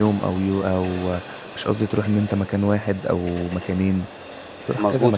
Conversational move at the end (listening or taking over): taking over